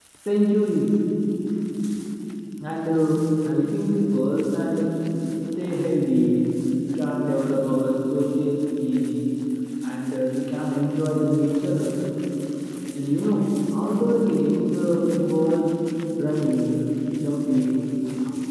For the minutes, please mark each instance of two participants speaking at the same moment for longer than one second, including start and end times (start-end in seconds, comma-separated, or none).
none